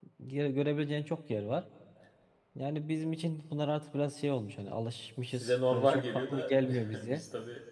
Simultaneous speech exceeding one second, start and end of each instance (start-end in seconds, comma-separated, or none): 5.3-7.2